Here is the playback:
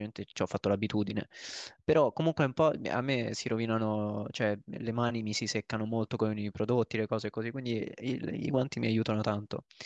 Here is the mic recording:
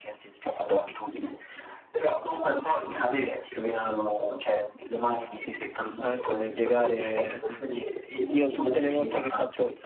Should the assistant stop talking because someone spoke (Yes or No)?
Yes